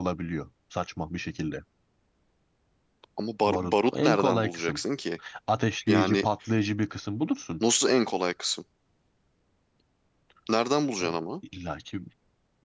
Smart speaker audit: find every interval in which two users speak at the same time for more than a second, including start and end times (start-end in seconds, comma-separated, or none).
3.5-4.8